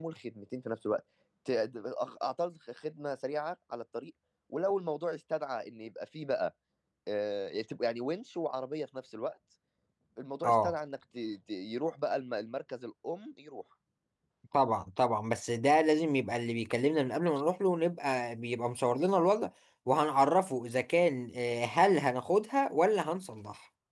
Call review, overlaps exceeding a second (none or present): none